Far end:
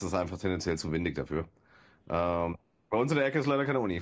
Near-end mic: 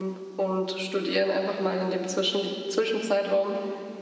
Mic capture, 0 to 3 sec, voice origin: user only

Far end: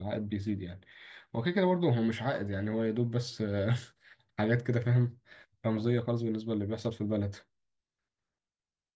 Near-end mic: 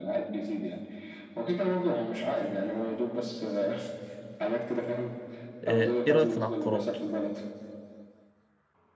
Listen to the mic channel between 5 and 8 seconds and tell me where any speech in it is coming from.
both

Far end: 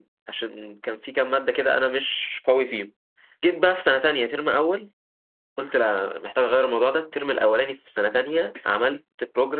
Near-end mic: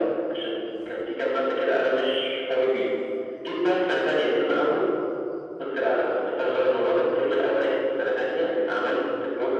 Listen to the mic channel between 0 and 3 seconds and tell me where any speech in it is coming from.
echo only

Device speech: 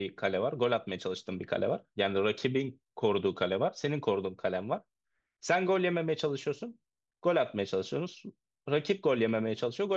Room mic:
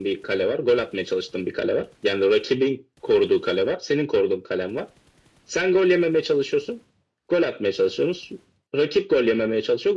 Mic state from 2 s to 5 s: echo only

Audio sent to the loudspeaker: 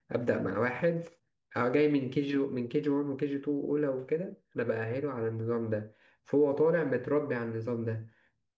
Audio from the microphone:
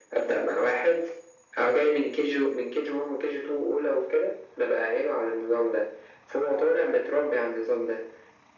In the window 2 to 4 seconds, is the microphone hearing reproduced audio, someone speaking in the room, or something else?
echo only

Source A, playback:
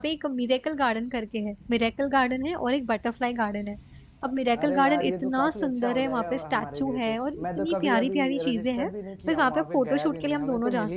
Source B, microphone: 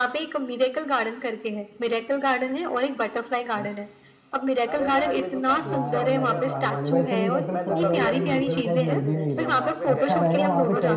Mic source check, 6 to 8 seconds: both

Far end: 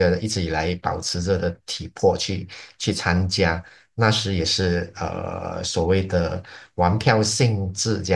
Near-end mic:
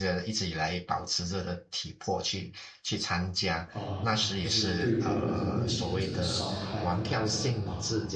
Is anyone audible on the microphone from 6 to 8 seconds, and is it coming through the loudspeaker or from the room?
both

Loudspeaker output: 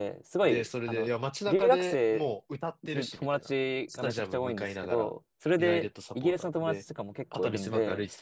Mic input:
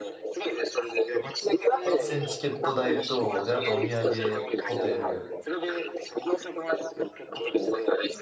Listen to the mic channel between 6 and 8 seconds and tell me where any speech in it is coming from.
echo only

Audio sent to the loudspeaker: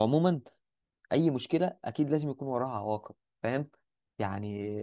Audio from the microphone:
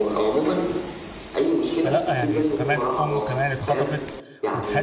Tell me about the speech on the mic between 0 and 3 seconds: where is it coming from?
both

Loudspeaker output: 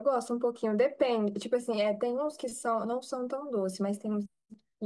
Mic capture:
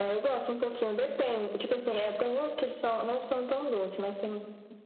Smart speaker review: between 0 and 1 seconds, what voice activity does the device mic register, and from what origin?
echo only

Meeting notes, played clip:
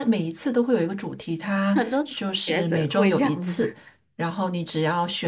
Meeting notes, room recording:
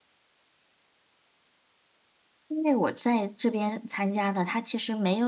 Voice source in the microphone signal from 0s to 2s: neither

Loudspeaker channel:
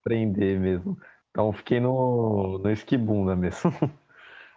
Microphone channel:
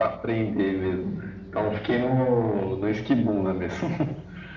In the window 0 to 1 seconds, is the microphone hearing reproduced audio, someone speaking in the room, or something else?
echo only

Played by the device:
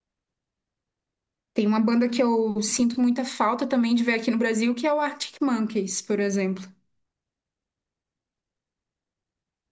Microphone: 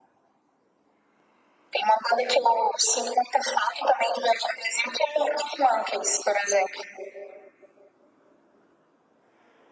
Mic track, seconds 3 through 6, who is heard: echo only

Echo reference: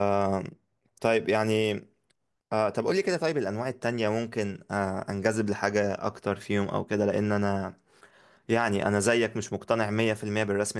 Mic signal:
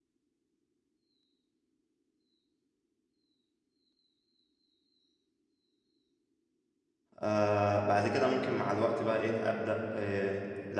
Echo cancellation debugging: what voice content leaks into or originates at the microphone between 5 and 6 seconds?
neither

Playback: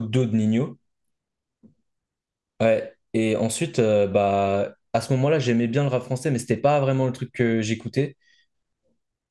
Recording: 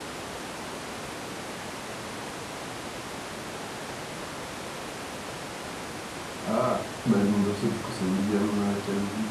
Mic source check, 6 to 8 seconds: user only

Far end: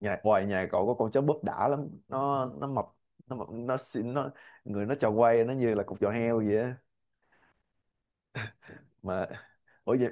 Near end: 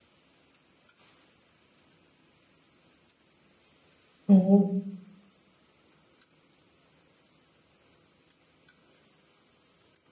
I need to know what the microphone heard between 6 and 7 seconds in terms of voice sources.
neither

